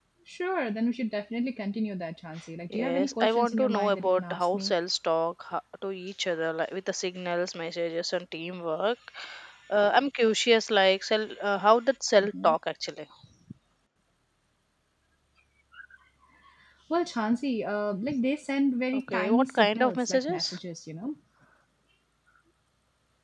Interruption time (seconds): 2.7 s

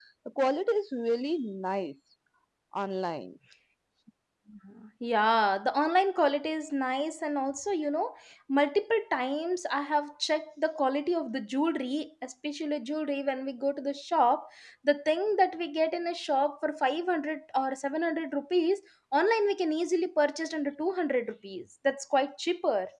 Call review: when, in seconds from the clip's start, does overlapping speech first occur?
none

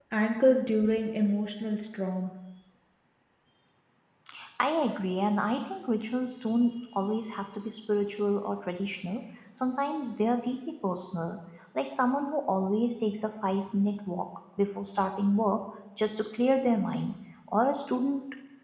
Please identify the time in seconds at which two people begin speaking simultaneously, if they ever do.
none

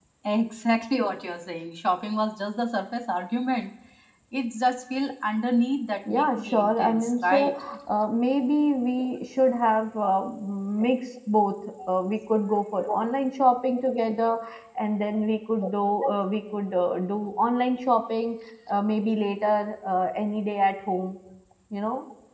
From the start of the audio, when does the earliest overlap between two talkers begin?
6.0 s

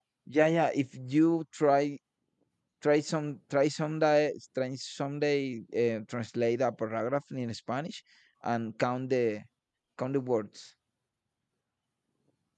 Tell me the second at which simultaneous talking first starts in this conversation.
none

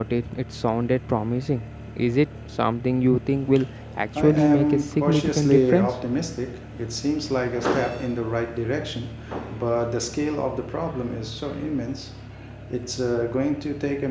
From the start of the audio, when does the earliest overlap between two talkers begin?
4.1 s

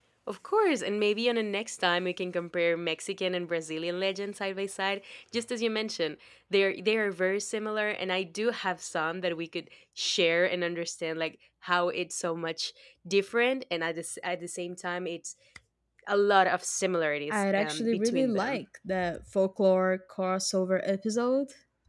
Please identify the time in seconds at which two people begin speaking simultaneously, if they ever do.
17.3 s

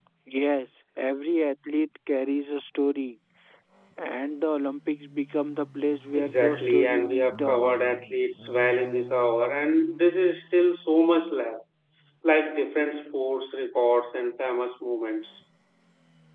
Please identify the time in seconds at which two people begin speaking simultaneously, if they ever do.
6.2 s

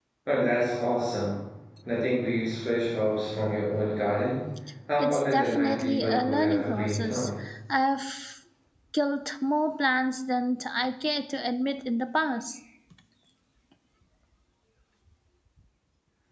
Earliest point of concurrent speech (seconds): 5.0 s

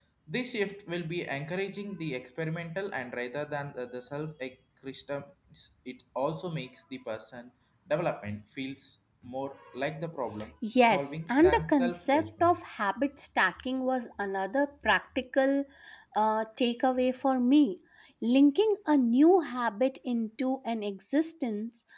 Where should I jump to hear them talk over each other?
10.8 s

